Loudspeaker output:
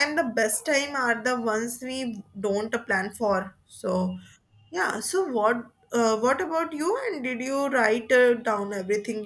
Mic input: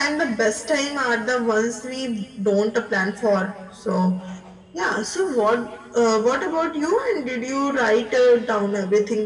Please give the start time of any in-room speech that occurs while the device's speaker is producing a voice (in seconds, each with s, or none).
none